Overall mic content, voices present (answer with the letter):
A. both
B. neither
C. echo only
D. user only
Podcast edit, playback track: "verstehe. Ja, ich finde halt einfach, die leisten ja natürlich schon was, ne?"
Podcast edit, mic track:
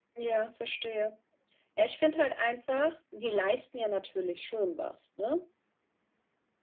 C